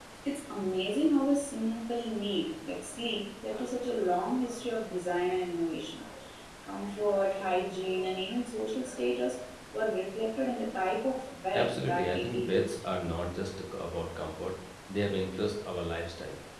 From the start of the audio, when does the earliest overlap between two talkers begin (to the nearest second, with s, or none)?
12 s